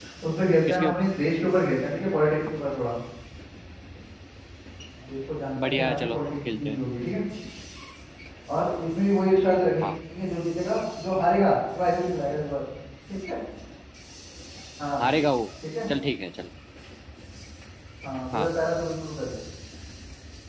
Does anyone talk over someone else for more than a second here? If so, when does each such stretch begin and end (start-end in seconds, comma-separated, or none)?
5.6-6.8